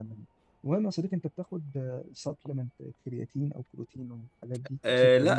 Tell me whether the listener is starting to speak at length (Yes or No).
Yes